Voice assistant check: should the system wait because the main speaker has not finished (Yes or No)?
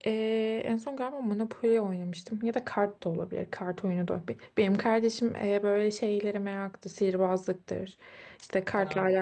Yes